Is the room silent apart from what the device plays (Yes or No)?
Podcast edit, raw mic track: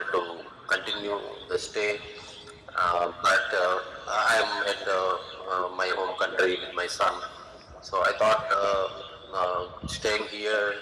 Yes